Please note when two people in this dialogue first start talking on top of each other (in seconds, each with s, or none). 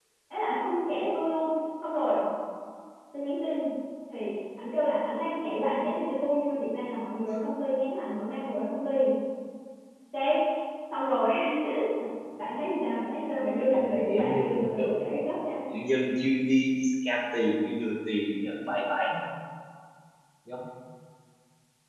13.7 s